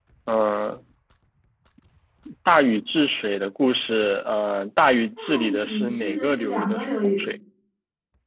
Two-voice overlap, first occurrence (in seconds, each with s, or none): 5.2 s